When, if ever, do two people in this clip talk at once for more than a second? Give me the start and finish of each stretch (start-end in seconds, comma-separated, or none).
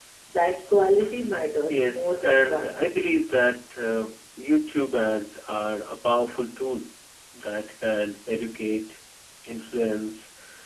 1.7-3.1